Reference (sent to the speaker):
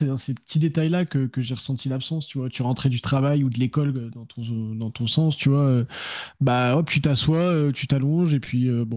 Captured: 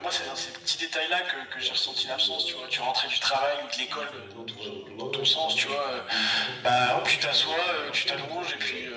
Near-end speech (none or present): present